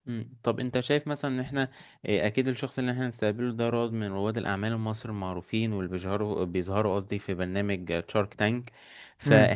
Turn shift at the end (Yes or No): No